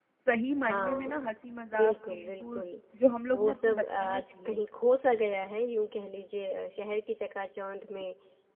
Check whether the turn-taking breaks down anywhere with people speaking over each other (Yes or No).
Yes